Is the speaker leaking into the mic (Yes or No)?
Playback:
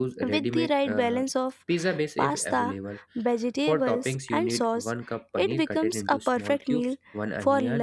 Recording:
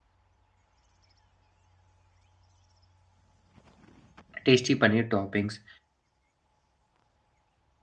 No